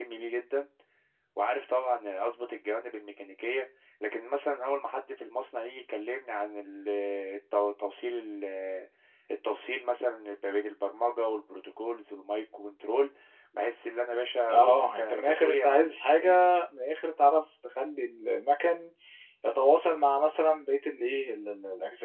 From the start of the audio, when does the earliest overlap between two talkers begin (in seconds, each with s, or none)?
14.5 s